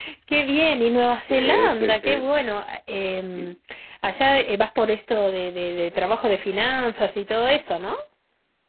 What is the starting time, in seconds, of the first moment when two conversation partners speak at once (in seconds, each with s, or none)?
1.0 s